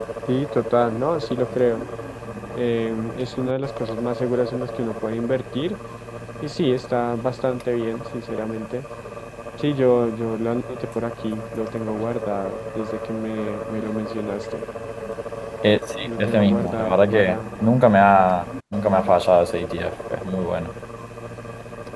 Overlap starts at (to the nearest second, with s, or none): 16 s